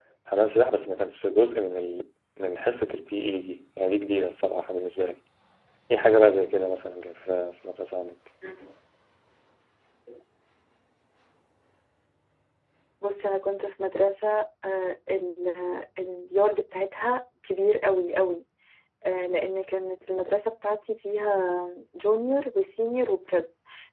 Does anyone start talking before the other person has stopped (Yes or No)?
No